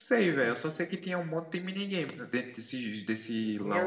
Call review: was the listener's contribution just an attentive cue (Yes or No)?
No